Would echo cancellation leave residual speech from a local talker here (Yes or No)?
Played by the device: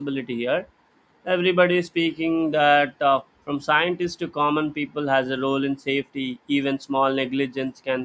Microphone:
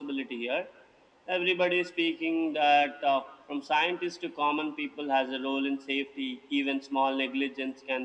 No